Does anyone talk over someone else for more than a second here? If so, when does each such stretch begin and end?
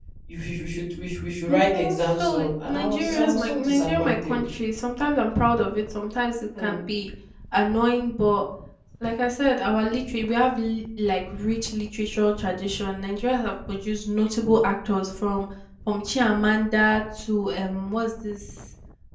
1.5-4.4

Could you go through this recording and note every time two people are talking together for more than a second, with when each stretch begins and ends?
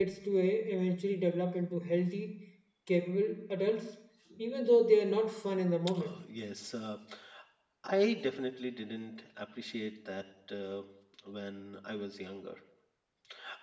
none

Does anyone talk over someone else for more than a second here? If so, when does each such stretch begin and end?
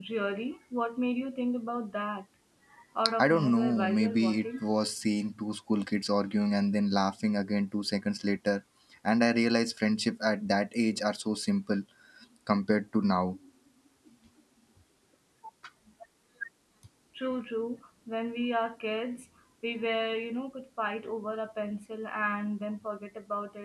3.2-4.5

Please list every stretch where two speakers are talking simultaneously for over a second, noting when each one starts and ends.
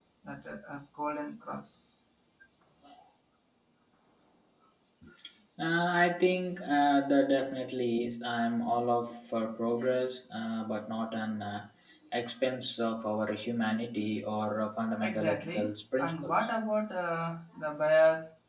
15.0-16.4

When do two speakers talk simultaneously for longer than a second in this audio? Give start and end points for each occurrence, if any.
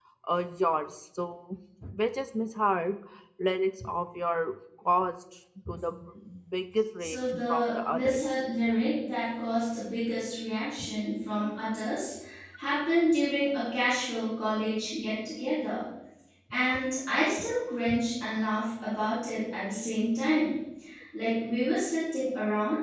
7.0-8.2

